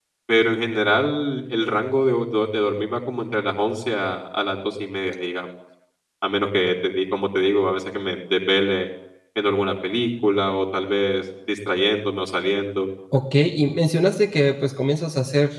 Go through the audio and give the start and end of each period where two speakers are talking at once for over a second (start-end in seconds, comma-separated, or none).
none